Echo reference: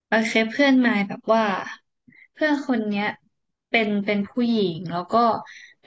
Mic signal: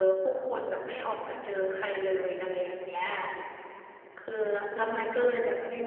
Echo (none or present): none